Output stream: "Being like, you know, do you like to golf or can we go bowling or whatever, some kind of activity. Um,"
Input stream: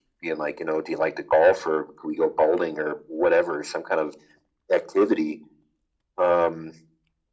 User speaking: No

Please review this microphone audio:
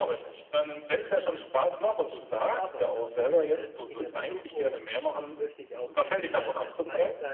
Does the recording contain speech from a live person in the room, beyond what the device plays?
Yes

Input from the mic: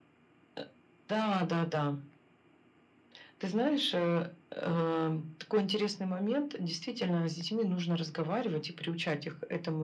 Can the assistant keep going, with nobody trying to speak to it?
Yes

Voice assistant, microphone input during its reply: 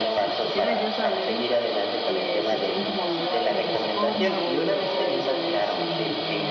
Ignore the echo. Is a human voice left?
Yes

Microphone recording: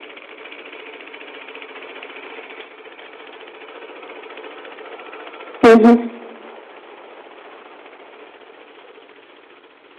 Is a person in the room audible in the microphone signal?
Yes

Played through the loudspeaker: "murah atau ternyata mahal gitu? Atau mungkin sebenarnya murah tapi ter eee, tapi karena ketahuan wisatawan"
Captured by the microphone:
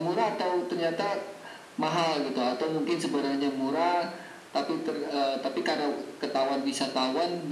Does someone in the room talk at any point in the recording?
No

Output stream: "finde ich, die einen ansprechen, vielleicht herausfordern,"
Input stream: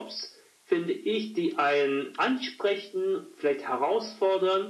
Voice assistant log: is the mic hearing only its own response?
Yes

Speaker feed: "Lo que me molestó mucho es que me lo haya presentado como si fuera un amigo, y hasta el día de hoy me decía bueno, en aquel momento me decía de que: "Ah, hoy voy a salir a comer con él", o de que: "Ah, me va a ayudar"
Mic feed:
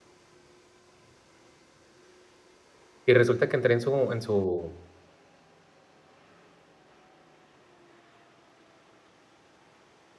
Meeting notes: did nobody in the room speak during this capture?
No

